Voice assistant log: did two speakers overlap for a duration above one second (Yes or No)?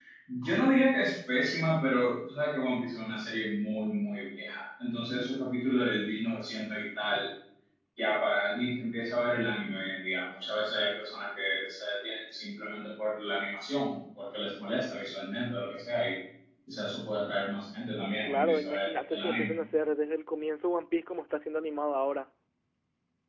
Yes